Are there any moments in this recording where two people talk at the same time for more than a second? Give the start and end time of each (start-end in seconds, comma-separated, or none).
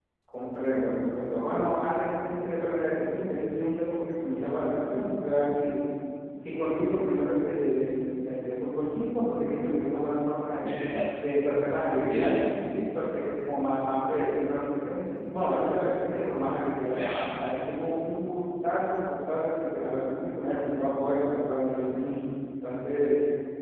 none